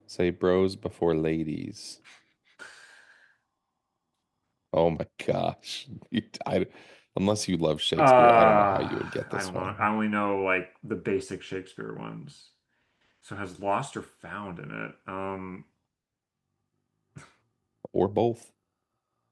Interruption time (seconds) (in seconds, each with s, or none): 8.0 s